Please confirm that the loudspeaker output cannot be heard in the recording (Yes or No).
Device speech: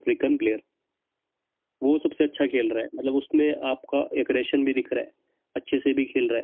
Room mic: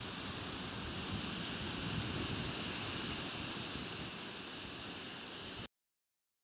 Yes